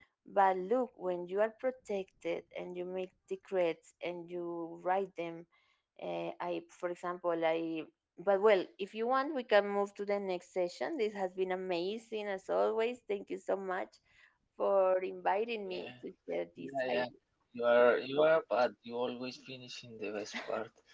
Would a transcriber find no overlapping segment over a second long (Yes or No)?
Yes